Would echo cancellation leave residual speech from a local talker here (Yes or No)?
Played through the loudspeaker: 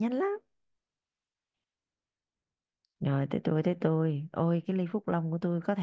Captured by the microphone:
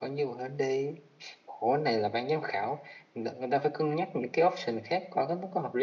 Yes